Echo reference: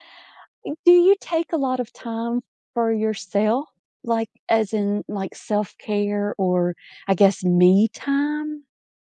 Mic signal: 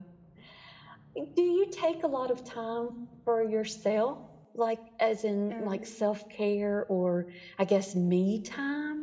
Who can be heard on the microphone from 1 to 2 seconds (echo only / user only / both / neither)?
echo only